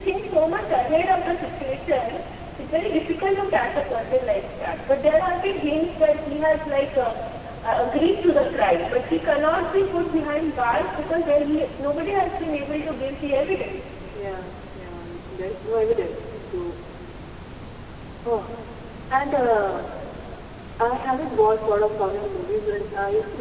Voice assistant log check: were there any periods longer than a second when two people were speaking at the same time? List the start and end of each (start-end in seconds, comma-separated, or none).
none